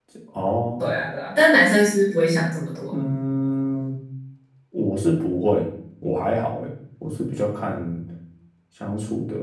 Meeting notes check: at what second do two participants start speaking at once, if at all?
none

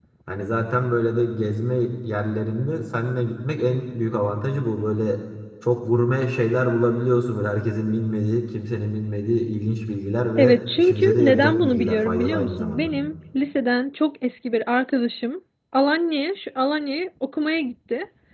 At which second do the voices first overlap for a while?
10.4 s

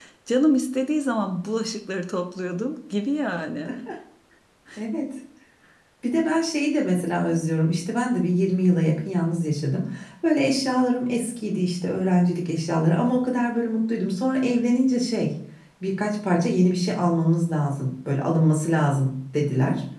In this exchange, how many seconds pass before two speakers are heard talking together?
none

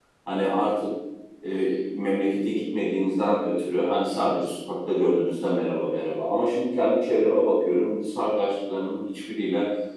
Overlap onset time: none

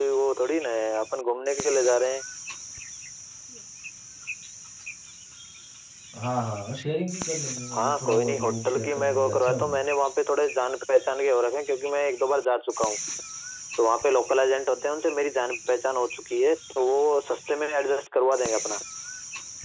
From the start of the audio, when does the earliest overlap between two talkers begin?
7.7 s

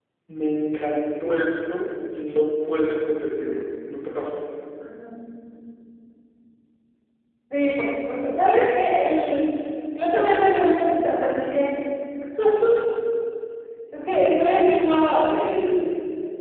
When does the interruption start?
none

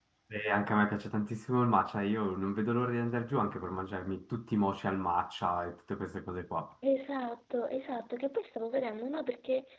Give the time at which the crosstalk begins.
none

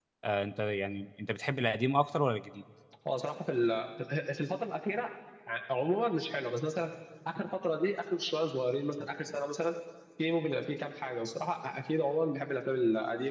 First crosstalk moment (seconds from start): none

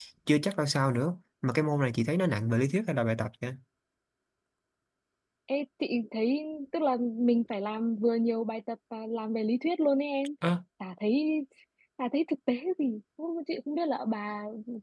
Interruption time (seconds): none

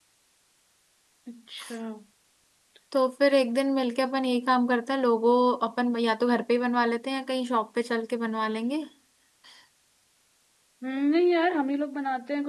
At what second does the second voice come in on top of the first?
none

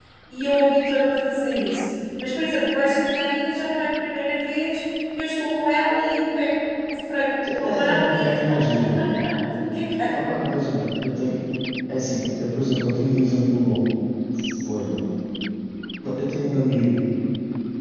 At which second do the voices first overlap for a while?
7.4 s

